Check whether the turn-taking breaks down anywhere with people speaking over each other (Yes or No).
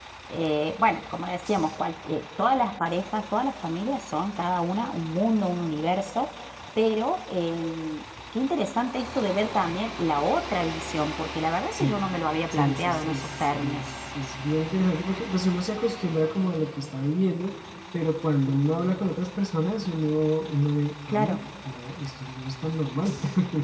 Yes